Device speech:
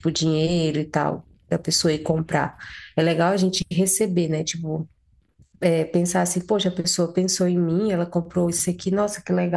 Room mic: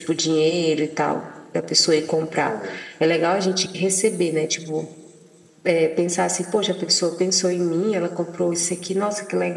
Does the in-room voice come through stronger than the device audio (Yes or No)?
No